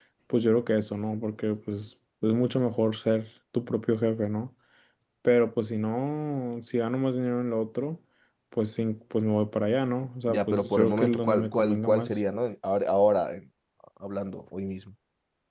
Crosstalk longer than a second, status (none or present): present